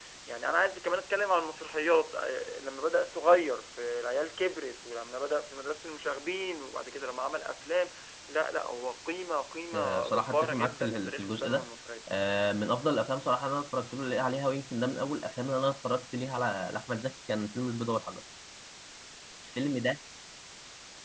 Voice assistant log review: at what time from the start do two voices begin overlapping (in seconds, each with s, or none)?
9.7 s